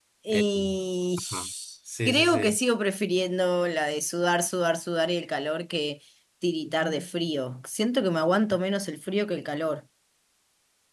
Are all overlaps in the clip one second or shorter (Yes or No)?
Yes